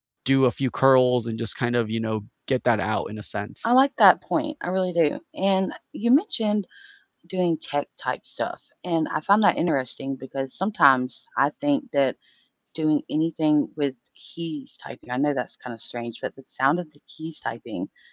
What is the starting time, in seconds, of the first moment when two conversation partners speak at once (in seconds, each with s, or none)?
none